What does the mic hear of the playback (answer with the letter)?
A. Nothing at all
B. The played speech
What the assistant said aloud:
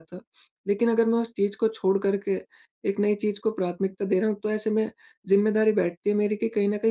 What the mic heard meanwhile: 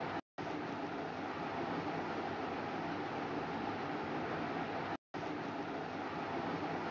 A